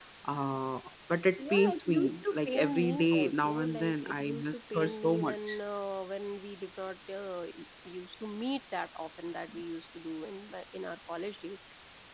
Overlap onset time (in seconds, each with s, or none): 1.4 s